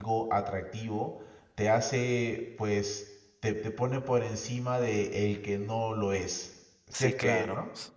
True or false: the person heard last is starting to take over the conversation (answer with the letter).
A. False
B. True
B